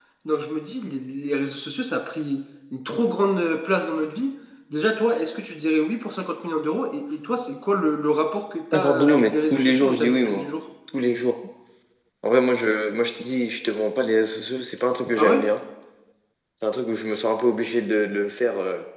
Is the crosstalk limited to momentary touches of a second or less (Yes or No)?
No